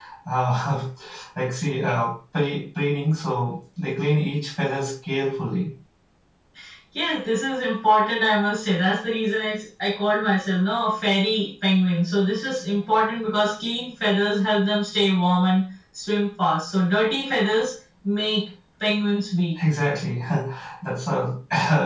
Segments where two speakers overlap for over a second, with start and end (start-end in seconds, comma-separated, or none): none